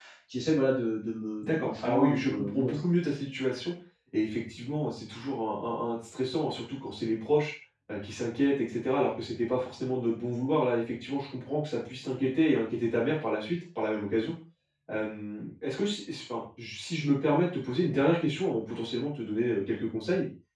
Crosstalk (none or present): present